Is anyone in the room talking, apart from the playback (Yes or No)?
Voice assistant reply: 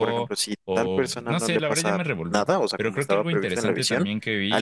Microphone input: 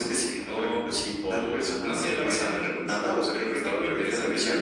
No